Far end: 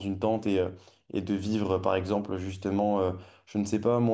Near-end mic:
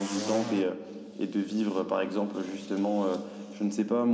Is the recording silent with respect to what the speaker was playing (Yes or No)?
No